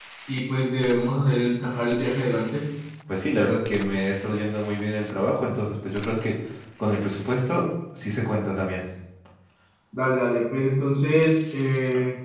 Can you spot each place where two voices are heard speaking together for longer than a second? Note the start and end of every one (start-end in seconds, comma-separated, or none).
none